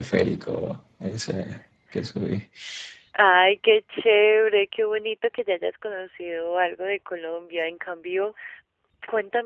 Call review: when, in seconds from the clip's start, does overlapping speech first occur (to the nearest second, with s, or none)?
none